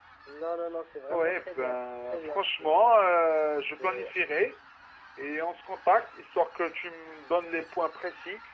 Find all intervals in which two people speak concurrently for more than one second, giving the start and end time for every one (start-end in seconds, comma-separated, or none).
1.1-3.0